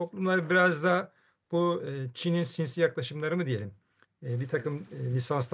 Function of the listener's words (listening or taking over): listening